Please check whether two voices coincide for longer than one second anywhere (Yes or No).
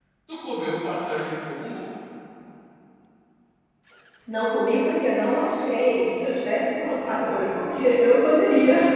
No